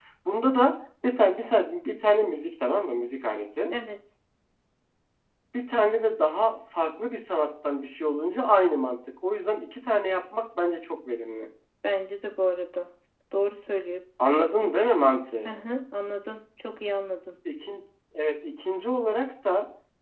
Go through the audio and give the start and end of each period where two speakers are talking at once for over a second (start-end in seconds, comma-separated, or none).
none